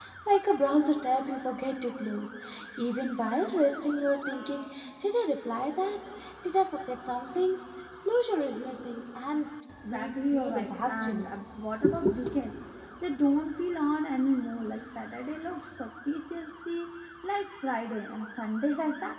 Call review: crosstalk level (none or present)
present